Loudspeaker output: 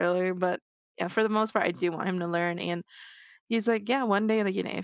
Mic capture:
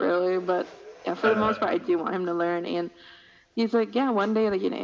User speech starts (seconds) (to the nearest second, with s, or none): 1 s